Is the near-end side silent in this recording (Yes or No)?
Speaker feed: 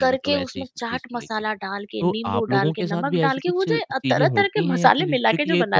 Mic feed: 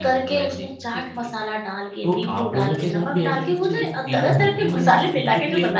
Yes